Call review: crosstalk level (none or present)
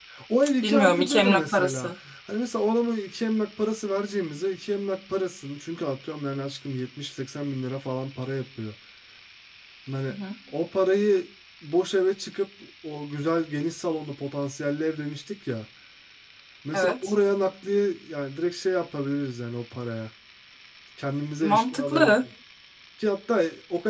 present